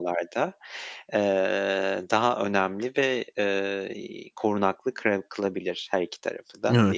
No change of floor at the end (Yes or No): No